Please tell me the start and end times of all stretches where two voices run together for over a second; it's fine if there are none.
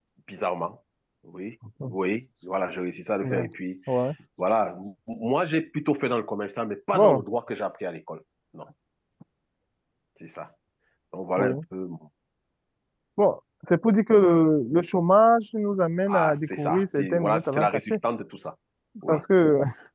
16.1-17.9

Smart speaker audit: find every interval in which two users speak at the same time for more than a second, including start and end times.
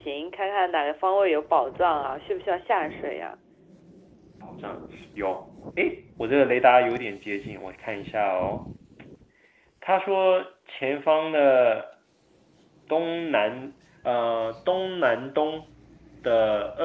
none

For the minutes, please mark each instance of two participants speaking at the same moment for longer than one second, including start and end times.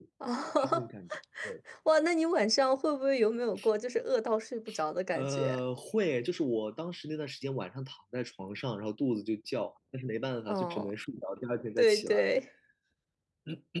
none

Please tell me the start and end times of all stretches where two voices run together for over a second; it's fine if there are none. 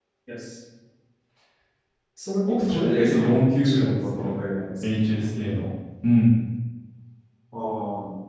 2.5-4.2

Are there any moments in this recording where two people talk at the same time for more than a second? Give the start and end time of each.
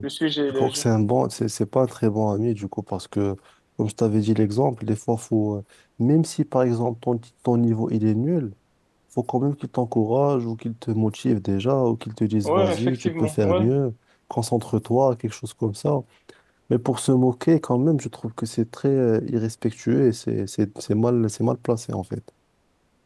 12.4-13.7

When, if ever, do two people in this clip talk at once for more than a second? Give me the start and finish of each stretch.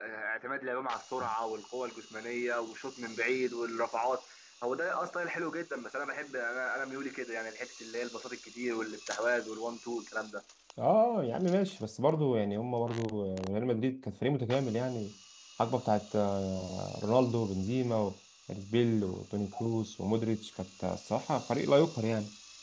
none

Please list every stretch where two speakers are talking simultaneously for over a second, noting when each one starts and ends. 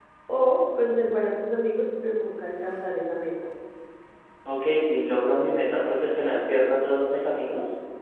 none

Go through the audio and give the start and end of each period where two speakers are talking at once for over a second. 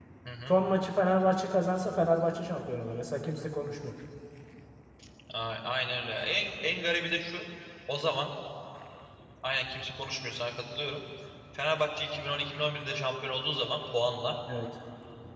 none

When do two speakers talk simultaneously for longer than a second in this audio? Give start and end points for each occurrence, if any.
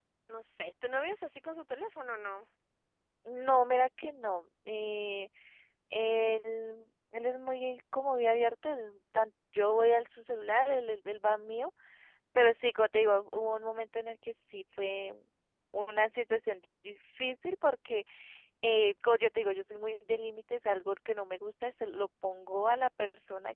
none

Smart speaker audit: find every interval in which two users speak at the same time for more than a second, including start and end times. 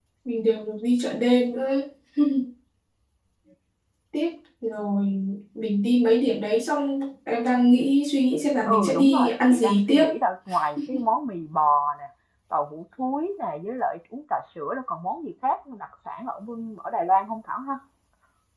8.7-10.0

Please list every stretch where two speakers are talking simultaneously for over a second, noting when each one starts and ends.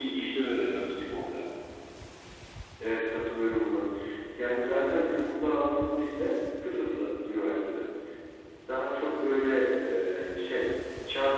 none

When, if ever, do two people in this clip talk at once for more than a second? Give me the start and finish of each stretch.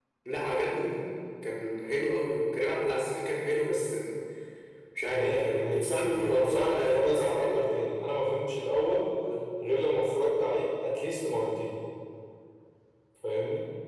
5.1-7.7

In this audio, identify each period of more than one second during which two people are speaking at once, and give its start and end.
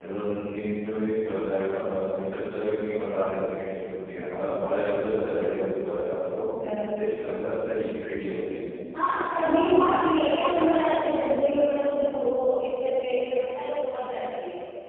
none

